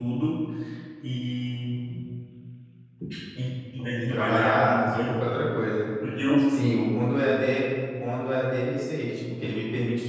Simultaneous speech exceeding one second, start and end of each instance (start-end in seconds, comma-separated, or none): 4.0-5.3